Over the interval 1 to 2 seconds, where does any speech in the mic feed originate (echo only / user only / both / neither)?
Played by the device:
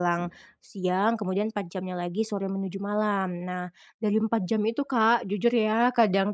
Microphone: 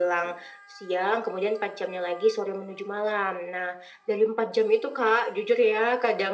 echo only